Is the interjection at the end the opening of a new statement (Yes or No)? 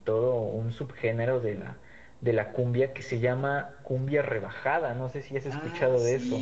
Yes